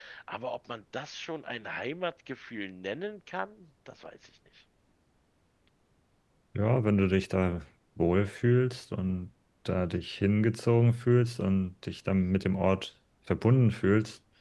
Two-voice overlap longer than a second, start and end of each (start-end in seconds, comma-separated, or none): none